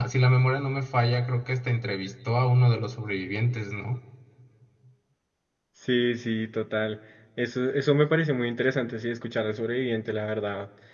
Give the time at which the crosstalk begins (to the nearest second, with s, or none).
none